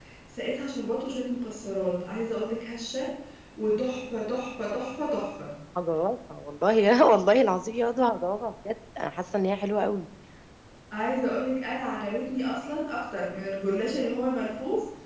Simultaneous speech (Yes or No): No